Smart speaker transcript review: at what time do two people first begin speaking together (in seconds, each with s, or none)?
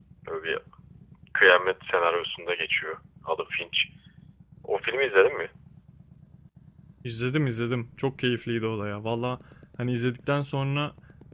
none